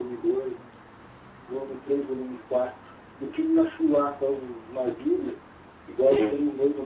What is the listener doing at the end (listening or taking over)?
listening